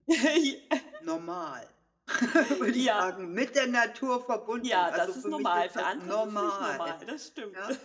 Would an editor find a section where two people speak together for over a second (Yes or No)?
Yes